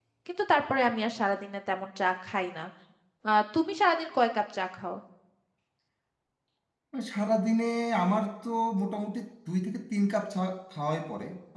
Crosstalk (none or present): none